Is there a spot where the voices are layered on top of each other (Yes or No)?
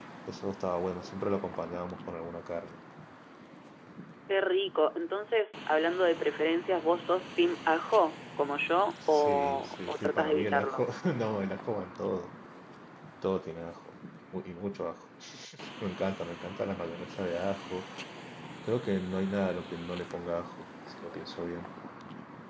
Yes